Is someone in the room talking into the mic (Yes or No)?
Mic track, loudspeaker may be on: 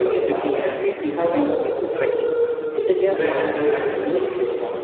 Yes